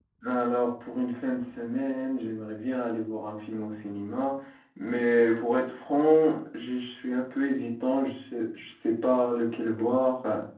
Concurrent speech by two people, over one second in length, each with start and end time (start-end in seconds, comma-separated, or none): none